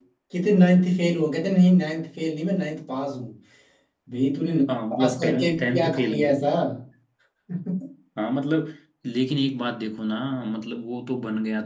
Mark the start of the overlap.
4.9 s

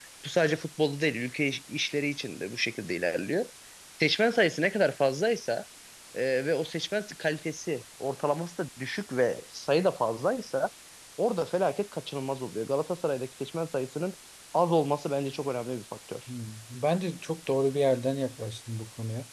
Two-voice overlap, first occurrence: none

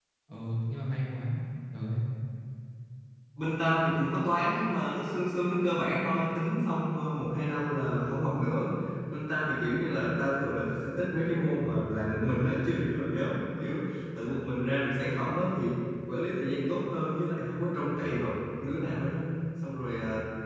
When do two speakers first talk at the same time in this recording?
none

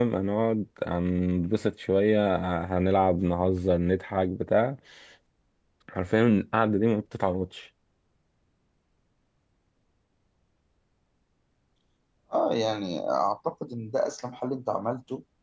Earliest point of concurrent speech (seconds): none

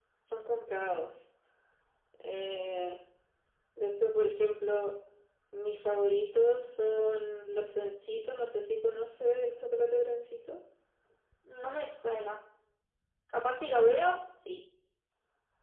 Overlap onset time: none

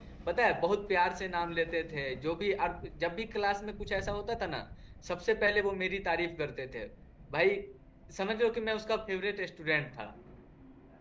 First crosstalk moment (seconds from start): none

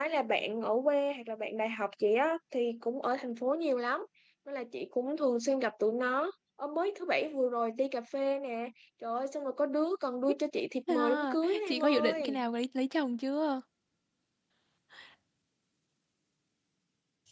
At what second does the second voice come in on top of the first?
10.9 s

